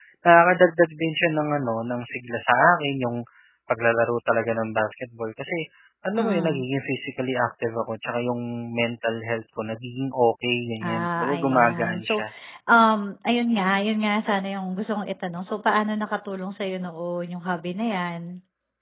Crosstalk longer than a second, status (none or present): present